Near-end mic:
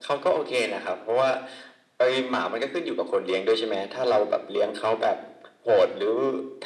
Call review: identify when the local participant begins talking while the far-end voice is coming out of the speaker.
none

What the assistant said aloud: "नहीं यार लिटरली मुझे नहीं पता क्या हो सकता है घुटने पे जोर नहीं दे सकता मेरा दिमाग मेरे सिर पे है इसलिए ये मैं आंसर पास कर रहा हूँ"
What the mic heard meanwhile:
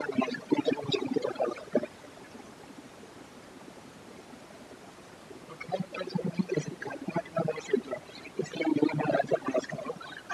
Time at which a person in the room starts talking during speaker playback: none

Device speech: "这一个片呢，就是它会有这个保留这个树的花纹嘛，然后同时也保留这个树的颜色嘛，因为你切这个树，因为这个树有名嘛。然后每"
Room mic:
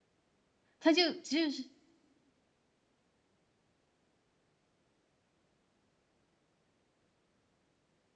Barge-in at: 0.8 s

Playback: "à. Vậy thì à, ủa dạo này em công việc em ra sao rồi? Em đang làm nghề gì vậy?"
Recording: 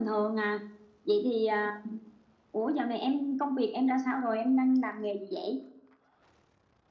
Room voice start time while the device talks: none

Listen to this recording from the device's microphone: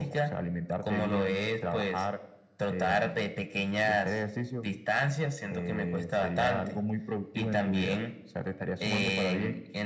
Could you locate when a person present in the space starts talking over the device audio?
none

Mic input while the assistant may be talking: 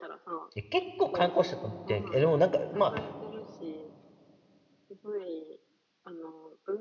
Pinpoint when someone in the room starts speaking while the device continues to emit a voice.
0.6 s

